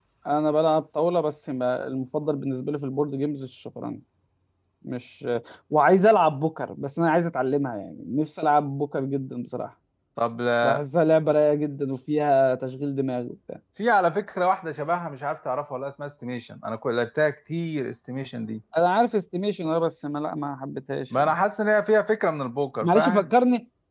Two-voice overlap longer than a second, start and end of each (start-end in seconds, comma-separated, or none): none